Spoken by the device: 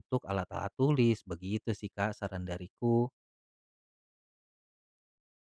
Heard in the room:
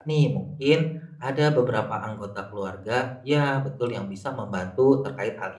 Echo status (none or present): none